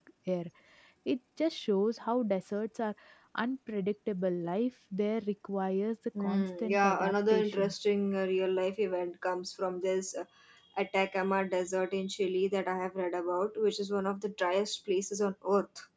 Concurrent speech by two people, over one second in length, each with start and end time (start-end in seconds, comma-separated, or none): 6.2-7.7